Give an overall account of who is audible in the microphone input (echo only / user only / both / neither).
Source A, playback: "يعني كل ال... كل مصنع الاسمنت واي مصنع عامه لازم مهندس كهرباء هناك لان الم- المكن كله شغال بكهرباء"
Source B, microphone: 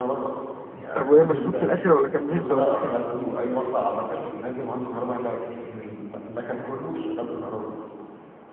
both